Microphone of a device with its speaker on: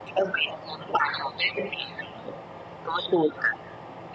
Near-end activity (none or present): none